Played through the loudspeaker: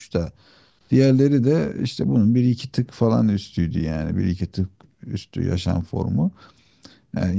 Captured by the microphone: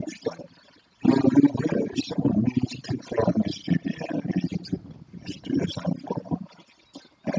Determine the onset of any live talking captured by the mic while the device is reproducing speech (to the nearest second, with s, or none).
none